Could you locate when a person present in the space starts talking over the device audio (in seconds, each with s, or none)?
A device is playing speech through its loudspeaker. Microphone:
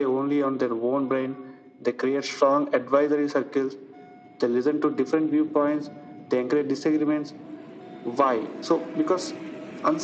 none